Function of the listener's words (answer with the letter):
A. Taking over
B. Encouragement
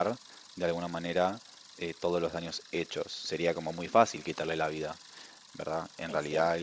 B